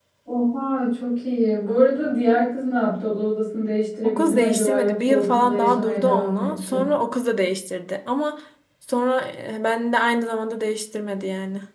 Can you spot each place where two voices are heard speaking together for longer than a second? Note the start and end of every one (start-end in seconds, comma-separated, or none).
4.0-6.9